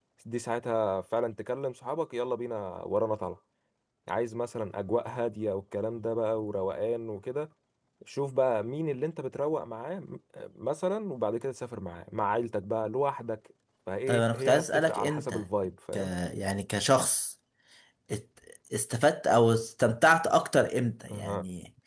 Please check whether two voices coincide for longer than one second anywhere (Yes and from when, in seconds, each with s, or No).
Yes, from 14.1 s